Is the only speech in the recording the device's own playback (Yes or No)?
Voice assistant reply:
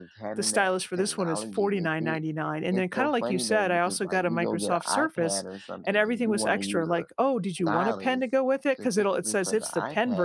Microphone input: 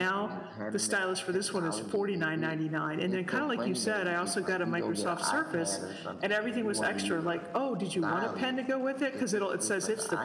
Yes